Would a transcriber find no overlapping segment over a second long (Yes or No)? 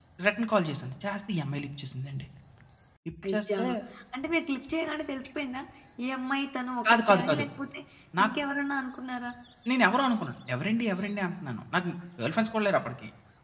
Yes